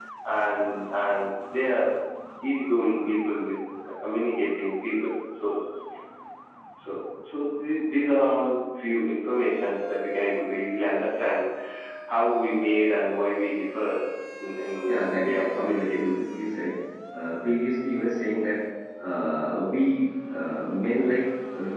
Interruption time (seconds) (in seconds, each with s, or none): 14.9 s